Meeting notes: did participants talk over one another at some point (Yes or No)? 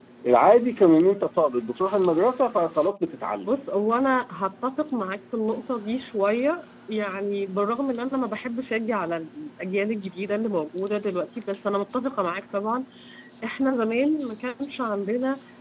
No